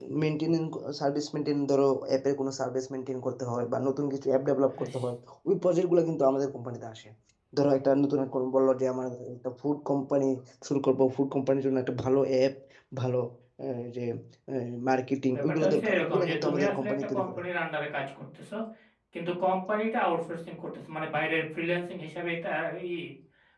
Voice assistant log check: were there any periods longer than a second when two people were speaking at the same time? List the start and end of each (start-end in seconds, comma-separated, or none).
15.3-17.4